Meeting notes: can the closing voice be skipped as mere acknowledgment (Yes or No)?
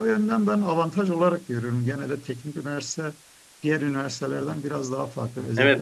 No